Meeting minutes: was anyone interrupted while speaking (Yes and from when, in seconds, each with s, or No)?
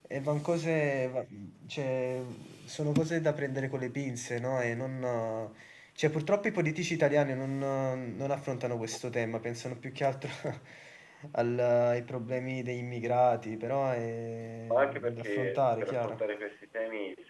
Yes, from 14.7 s